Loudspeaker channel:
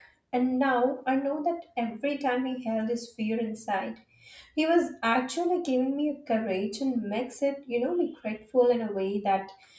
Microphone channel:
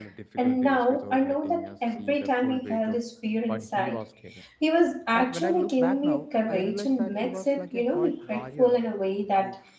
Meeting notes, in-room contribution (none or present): present